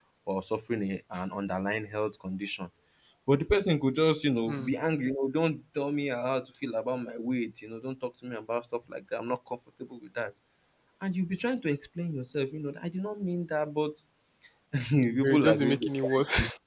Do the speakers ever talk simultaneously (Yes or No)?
Yes